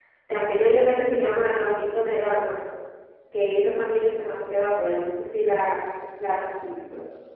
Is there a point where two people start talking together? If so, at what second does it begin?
none

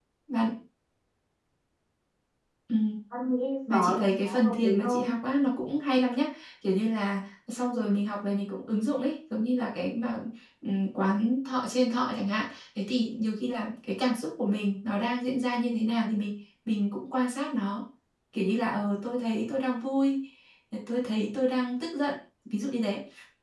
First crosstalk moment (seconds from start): 3.7 s

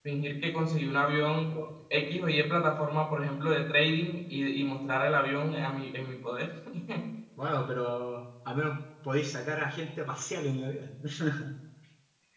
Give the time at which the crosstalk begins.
none

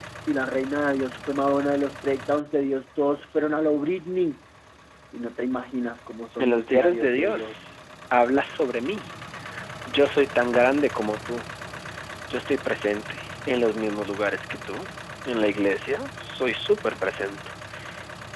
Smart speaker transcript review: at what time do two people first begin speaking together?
6.4 s

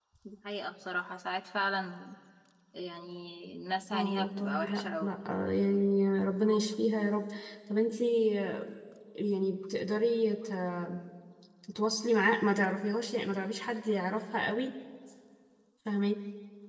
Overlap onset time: 3.9 s

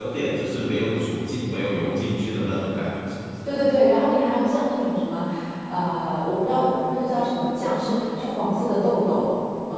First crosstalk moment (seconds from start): none

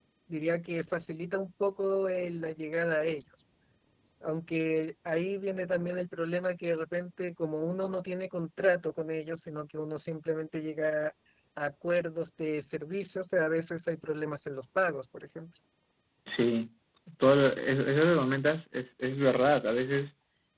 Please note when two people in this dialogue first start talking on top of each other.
none

